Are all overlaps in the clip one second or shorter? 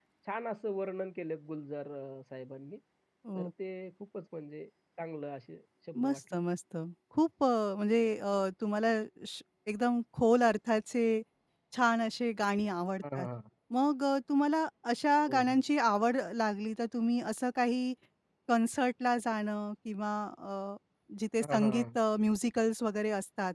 Yes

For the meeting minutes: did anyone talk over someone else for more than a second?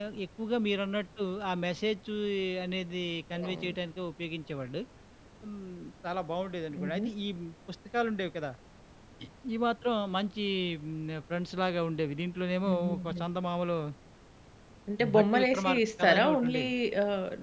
Yes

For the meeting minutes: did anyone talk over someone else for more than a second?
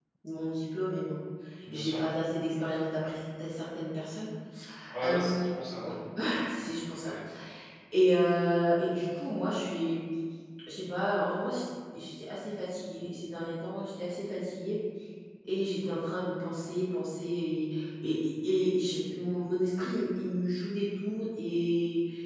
No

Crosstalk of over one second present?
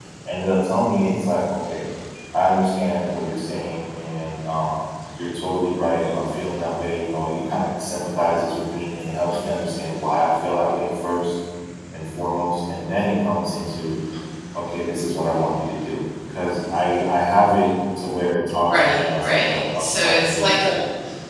Yes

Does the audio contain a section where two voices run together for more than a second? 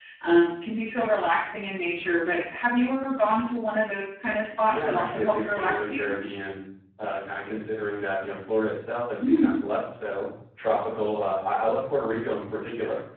Yes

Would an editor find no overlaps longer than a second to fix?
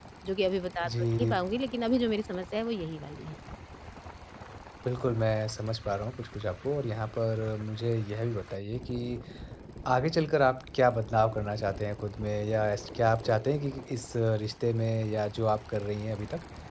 Yes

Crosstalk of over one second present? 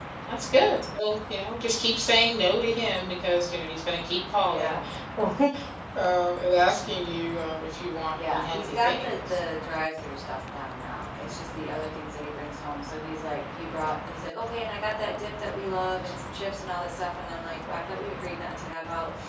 Yes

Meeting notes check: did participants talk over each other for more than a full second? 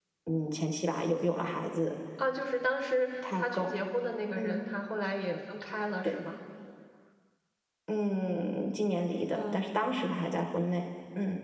No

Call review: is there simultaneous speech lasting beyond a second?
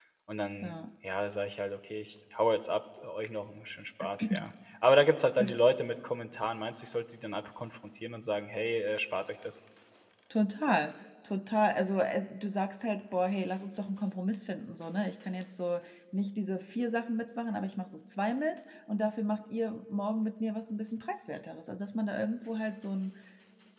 No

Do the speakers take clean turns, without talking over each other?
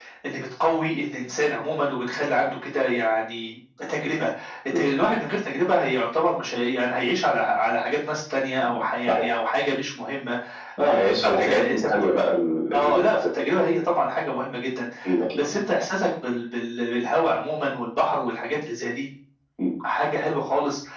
No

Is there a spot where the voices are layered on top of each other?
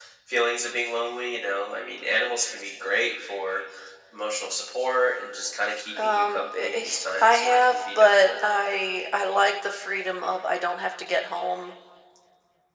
Yes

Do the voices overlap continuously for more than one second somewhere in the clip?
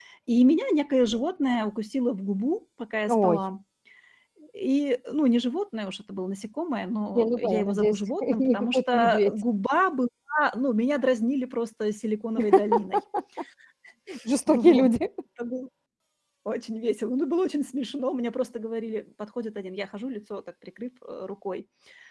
Yes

